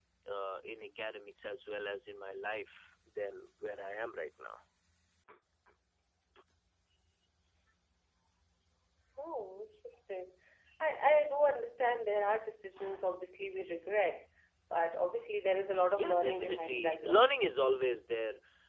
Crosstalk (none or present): present